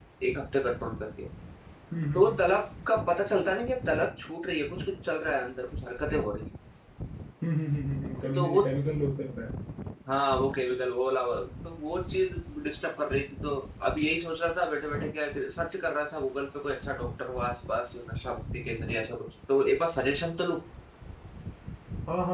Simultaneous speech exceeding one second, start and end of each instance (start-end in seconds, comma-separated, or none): none